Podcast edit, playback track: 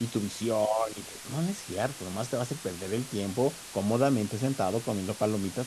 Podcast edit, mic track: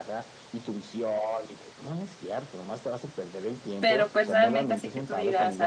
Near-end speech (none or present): present